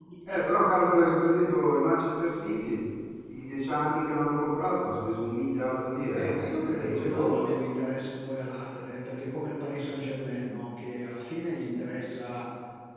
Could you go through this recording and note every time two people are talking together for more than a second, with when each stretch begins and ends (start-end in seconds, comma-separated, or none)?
6.1-7.3